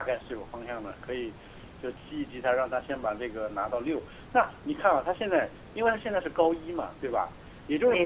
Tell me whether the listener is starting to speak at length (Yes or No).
No